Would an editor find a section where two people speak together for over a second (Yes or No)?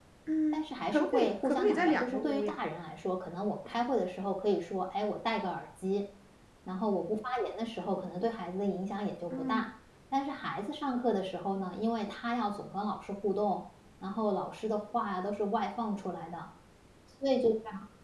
Yes